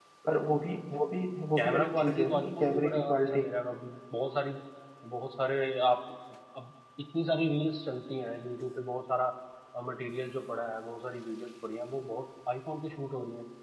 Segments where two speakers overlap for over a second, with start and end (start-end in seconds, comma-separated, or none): 1.6-3.5